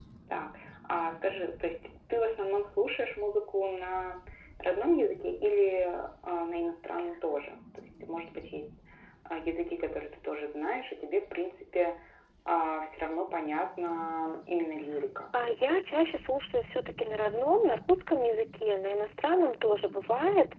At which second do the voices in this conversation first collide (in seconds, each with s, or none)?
none